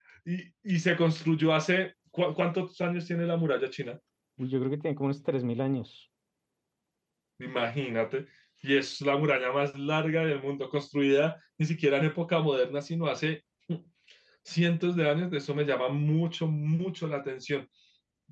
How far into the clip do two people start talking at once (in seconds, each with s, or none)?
none